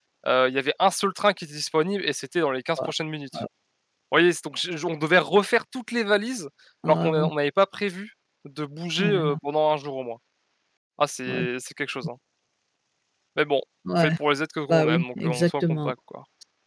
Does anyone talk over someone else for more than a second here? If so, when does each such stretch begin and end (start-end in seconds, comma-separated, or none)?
14.7-15.9